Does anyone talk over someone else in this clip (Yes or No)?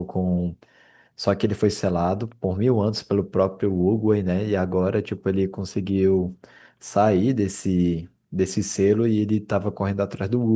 No